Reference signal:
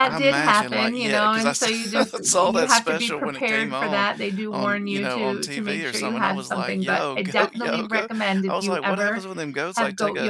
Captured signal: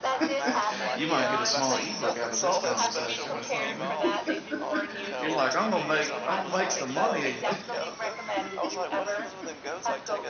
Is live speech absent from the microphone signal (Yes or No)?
No